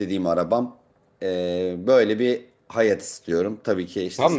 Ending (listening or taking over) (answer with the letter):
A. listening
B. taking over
B